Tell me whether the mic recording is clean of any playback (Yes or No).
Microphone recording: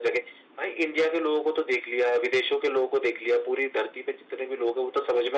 No